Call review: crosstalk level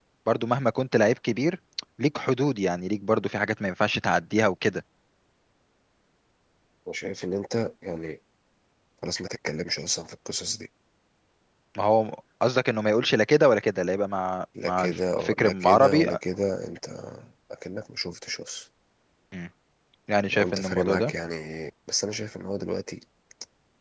present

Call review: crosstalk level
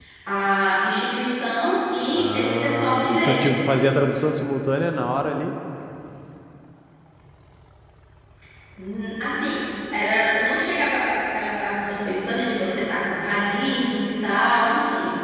present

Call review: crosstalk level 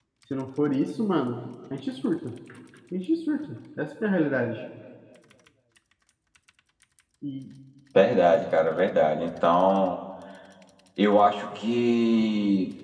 none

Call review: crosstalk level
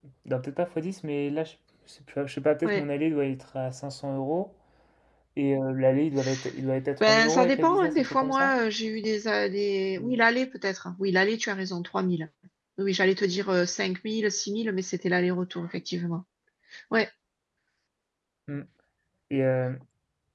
present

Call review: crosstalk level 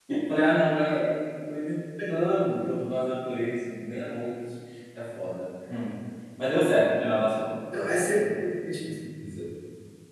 none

